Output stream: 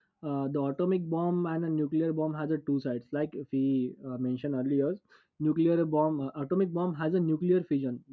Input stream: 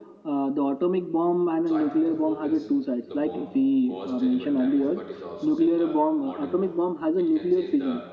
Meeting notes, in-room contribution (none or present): present